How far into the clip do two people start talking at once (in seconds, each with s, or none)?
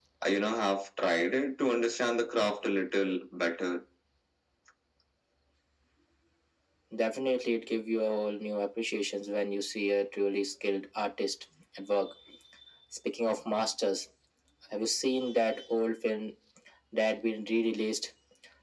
none